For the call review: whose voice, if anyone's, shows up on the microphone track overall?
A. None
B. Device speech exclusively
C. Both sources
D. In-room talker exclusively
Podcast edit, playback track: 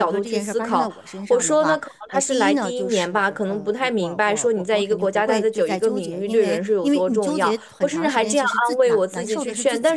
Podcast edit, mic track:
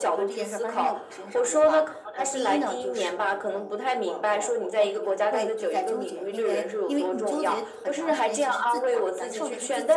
B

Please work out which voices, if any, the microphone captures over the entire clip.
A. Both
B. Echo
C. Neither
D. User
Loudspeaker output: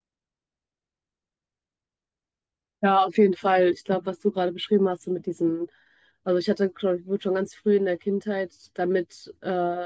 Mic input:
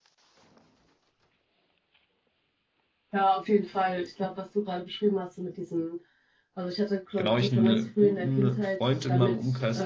A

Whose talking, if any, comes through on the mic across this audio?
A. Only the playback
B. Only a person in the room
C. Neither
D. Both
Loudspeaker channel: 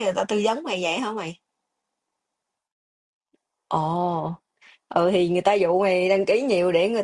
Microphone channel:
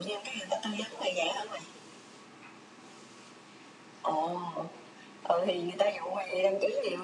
A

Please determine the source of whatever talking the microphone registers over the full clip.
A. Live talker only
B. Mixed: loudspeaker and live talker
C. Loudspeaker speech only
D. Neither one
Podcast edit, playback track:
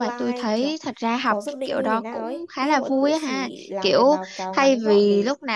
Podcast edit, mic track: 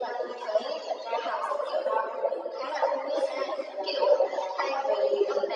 C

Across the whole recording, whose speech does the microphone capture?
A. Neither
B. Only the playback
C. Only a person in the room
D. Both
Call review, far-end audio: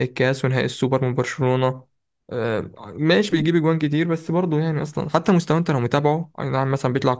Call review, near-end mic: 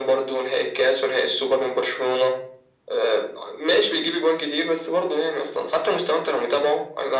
B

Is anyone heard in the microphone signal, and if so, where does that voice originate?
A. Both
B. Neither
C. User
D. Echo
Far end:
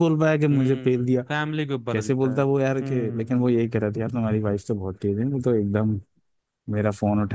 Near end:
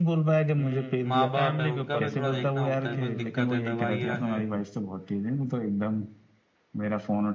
A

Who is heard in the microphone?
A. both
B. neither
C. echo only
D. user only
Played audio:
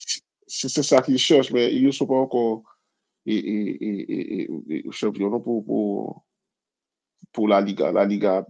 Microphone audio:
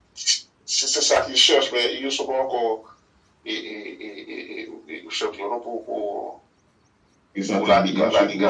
A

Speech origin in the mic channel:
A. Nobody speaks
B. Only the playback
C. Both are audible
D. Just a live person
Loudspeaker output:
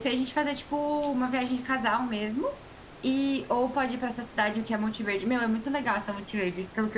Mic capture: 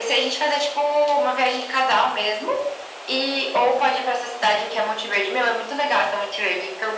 B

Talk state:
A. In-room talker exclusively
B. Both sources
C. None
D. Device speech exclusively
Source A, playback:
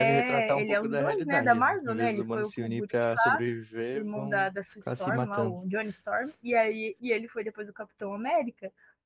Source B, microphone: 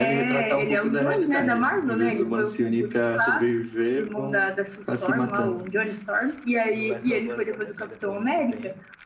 B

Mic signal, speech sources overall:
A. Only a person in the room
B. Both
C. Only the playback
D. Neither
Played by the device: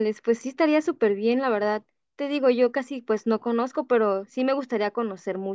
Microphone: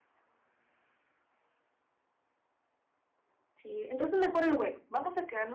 A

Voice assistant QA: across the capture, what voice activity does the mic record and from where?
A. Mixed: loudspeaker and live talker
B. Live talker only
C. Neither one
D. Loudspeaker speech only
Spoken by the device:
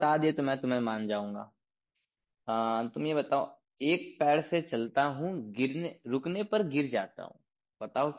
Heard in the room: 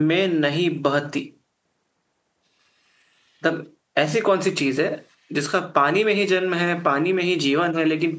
B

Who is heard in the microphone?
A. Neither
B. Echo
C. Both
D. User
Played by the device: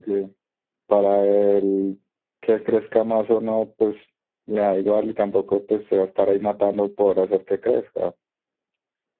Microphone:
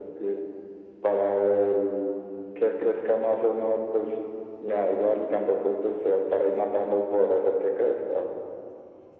B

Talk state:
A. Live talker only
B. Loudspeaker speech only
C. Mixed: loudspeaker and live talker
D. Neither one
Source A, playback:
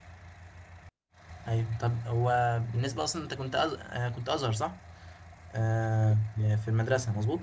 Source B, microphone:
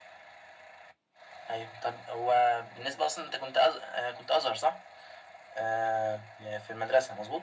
B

